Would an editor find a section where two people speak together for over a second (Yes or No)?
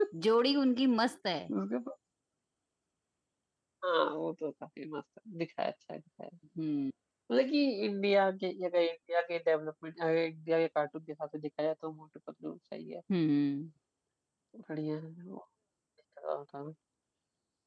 No